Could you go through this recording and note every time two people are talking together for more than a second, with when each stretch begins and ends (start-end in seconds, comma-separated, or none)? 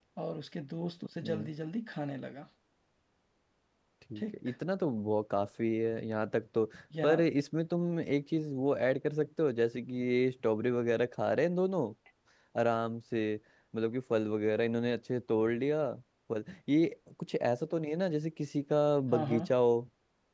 none